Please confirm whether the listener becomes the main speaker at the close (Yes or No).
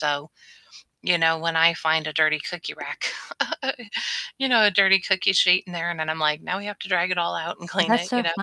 Yes